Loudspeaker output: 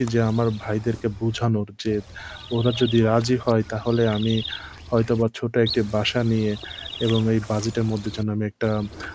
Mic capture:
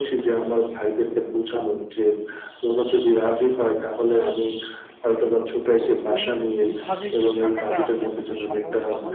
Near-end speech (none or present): present